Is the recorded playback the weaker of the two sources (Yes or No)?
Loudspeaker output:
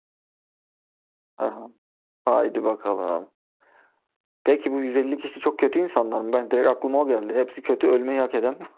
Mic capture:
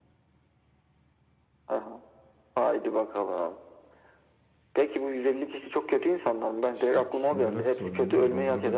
No